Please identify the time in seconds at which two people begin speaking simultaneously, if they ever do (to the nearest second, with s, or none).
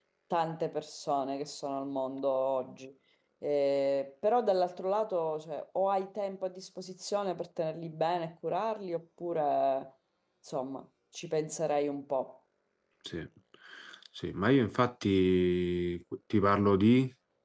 none